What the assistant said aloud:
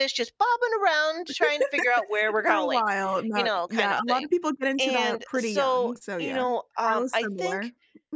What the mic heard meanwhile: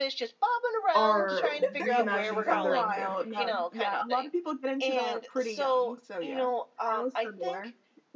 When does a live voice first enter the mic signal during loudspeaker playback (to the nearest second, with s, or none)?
1 s